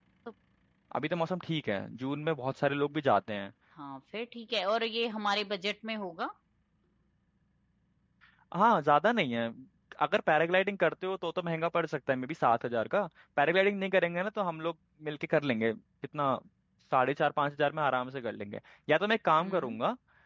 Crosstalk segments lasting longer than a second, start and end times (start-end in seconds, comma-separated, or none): none